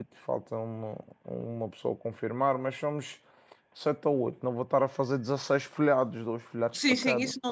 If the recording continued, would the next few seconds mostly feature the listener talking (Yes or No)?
Yes